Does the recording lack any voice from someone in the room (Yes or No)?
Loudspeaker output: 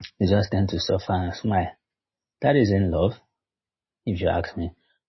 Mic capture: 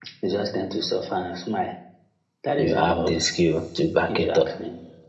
No